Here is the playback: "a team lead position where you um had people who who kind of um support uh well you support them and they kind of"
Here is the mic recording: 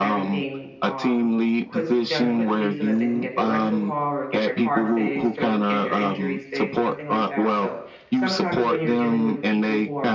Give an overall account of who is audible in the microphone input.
both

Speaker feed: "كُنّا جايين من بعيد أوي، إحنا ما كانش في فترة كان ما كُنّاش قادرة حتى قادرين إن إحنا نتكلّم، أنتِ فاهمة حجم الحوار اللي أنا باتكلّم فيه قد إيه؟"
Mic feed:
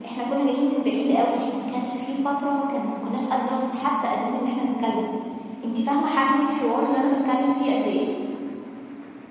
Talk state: echo only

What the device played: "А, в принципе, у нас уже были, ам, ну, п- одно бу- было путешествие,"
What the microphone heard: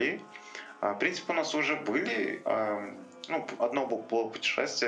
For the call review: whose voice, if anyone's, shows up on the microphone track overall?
echo only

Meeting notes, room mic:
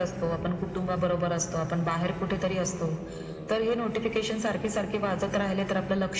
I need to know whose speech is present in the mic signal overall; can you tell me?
echo only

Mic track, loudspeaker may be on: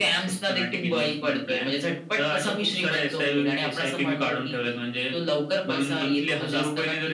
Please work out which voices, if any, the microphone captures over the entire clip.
echo only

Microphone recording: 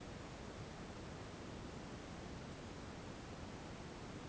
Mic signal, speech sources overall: neither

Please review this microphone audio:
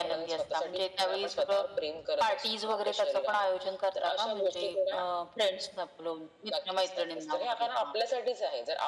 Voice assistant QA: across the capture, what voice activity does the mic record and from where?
echo only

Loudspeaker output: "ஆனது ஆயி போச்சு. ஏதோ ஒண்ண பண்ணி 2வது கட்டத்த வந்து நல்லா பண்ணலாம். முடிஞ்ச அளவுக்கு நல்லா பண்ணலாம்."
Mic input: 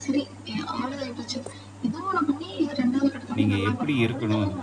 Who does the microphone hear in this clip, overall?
both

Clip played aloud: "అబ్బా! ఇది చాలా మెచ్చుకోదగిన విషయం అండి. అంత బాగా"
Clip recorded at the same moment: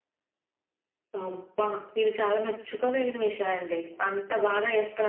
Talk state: echo only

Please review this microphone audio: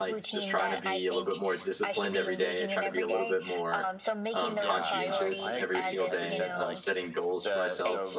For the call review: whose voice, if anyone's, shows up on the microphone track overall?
both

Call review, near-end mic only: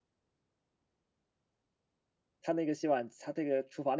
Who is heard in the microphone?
user only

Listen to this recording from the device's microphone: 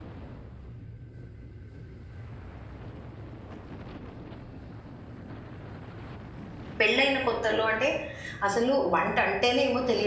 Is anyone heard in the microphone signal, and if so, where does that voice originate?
user only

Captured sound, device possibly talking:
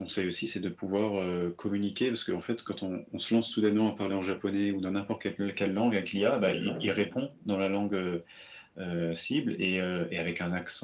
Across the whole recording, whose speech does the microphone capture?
both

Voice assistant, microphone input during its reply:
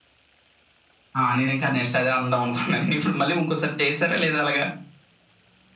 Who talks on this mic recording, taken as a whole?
echo only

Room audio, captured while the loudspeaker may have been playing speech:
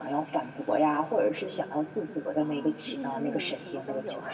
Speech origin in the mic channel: both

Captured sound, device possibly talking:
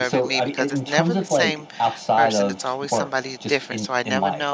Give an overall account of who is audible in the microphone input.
both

